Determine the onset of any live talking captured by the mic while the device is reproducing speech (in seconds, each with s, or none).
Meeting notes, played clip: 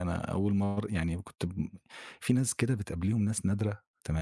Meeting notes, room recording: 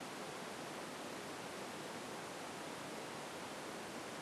none